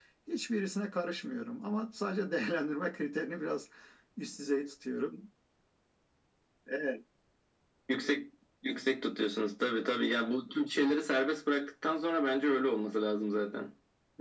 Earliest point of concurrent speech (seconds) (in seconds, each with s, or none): none